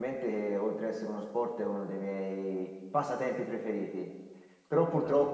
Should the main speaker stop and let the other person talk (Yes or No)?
No